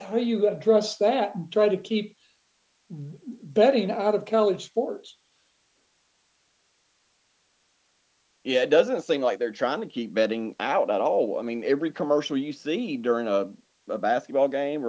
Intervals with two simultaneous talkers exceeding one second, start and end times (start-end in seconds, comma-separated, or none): none